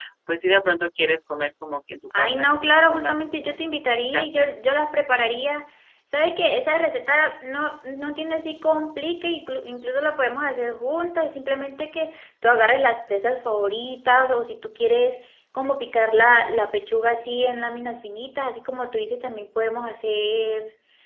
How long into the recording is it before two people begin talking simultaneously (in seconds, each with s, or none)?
2.1 s